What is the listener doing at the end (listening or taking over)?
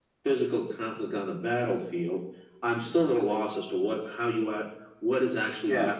taking over